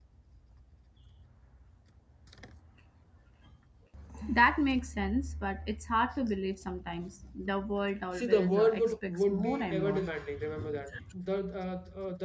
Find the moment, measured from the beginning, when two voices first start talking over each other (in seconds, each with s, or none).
8.1 s